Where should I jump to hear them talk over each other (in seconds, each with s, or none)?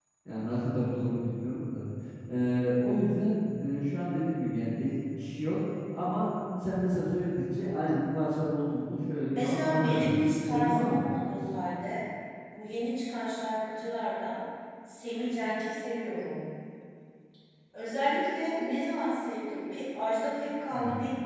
9.3 s